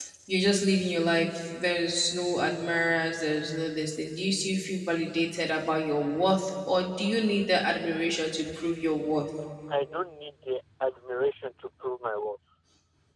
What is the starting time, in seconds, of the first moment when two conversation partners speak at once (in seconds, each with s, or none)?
none